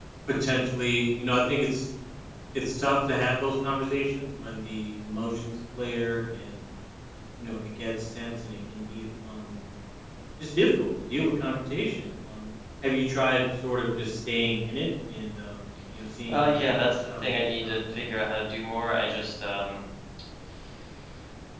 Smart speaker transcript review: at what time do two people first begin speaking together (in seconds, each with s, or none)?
16.3 s